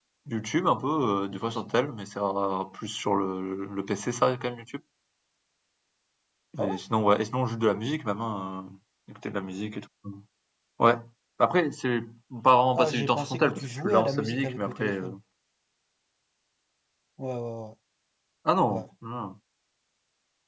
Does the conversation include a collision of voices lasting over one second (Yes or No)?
Yes